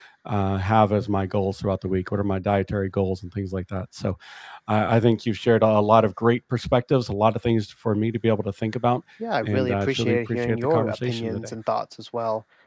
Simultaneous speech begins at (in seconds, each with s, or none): 9.4 s